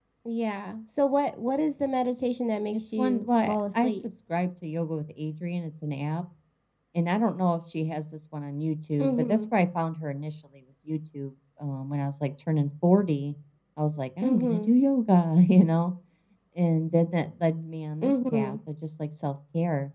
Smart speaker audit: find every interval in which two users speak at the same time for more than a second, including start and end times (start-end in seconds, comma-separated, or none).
2.7-4.1